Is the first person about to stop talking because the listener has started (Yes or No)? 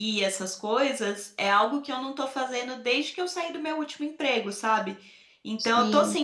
No